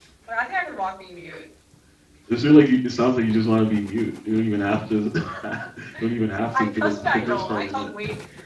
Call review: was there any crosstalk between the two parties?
Yes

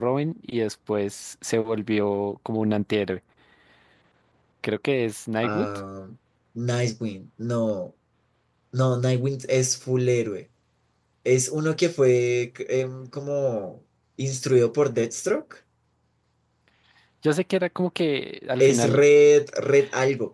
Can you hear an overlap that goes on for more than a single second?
No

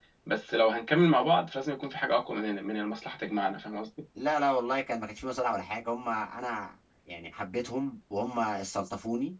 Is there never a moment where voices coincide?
Yes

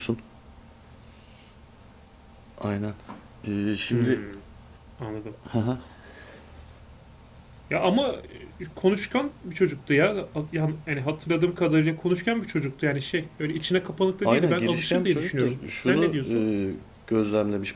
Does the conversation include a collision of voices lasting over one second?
Yes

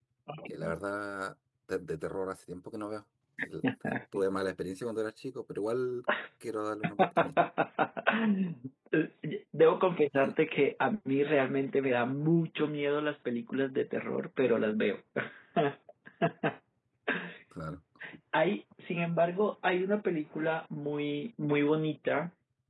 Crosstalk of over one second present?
No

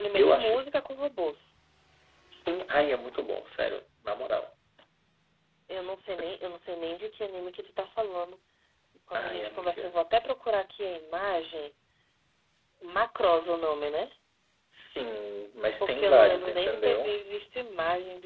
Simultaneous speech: Yes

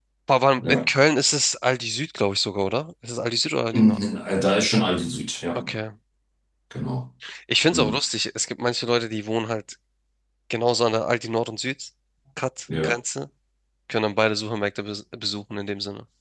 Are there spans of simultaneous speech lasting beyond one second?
No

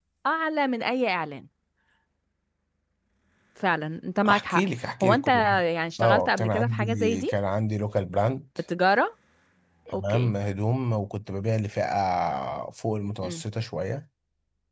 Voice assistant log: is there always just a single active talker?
No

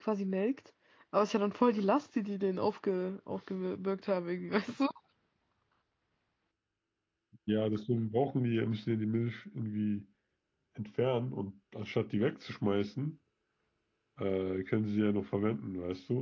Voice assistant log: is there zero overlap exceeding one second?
Yes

